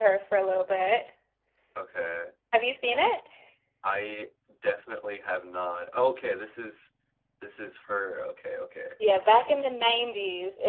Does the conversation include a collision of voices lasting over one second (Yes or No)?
No